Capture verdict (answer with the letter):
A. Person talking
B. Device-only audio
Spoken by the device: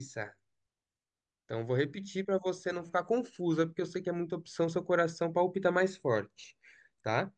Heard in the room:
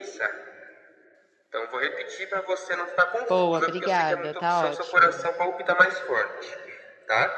A